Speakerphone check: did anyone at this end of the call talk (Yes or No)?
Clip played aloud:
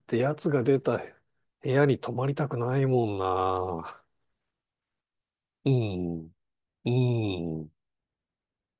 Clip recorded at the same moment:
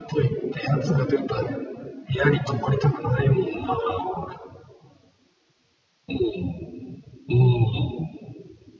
No